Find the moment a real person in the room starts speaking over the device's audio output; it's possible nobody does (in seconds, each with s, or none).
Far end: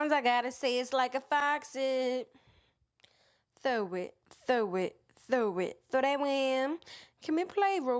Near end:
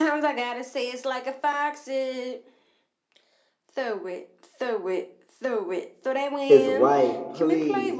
6.5 s